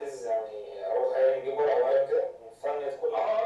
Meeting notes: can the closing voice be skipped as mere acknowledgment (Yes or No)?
No